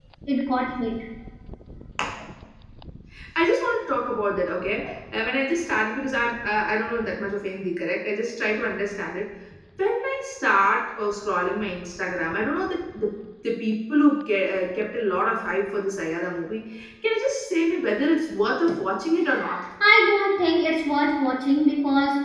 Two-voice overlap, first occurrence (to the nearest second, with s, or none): none